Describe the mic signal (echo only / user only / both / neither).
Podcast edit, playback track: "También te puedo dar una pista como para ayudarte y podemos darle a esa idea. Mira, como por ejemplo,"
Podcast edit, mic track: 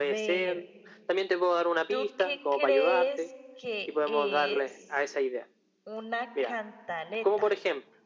both